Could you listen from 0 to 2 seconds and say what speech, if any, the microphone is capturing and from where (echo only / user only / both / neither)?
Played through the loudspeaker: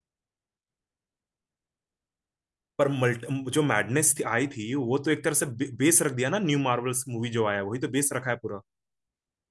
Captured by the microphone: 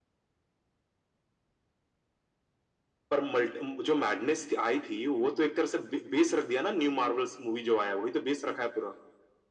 neither